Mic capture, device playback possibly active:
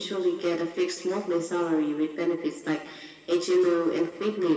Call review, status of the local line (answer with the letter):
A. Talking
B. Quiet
B